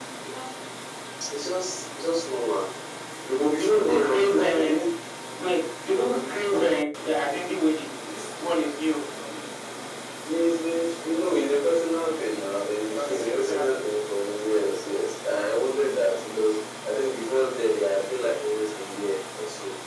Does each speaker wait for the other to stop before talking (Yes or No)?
No